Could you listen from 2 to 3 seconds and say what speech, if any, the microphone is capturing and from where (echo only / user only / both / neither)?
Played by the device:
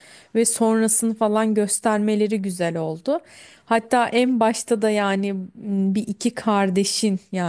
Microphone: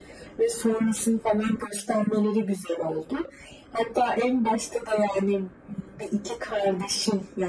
echo only